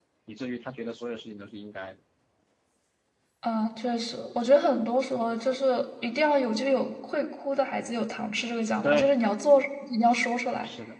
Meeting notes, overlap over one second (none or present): none